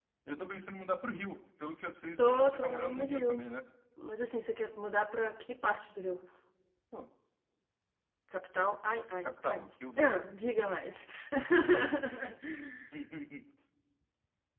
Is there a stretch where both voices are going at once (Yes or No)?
Yes